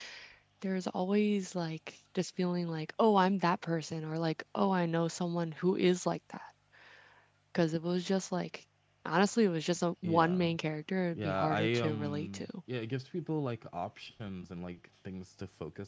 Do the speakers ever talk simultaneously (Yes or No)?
Yes